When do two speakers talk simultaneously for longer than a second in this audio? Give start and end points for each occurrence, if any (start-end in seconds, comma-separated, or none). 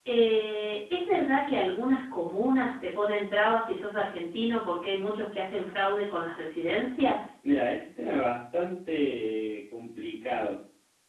none